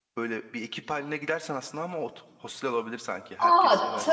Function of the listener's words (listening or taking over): taking over